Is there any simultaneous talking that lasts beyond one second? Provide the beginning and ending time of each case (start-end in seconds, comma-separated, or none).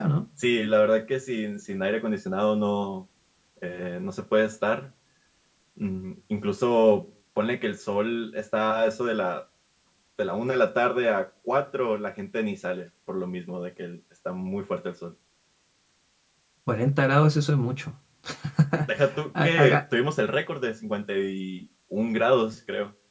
none